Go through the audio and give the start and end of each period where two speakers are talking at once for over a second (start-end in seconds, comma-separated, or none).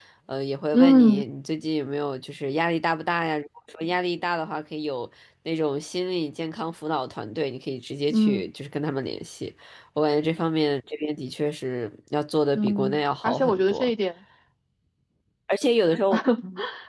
12.5-13.9